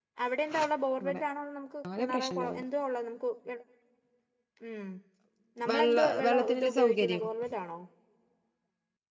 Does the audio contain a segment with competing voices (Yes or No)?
Yes